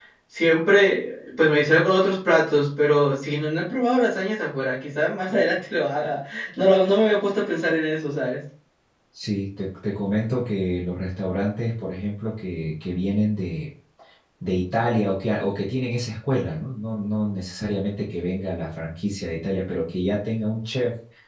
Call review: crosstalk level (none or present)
none